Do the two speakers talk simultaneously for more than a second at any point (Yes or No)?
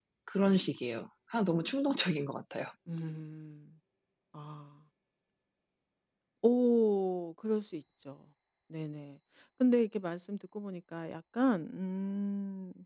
No